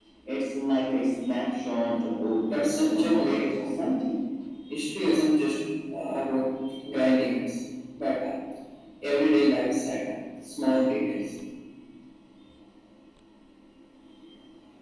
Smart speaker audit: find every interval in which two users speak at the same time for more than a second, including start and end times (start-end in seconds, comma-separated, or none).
2.5-3.8